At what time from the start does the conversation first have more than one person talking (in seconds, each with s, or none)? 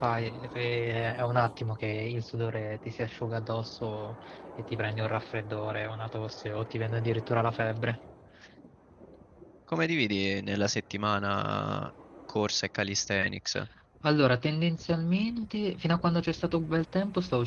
none